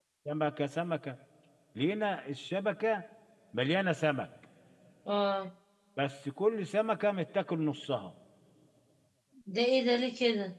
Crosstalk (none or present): none